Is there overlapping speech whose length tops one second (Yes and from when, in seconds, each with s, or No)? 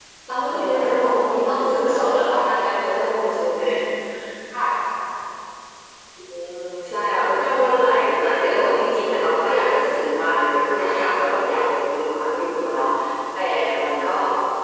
Yes, from 0.5 s